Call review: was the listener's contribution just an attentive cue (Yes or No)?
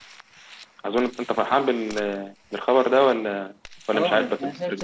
No